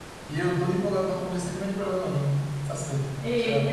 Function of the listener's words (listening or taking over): taking over